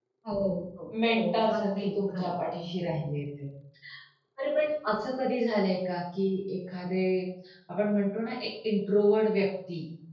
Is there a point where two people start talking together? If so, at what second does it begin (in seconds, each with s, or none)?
1.1 s